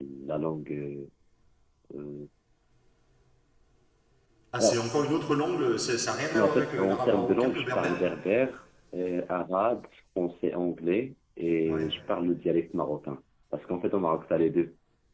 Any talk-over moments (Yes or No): Yes